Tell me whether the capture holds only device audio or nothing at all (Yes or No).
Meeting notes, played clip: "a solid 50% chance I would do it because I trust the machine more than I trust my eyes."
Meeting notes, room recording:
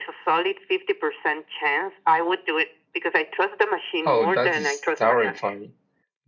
No